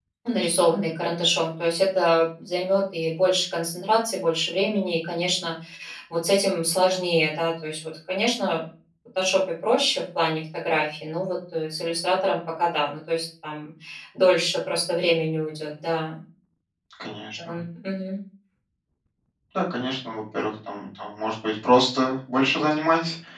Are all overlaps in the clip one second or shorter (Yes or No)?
Yes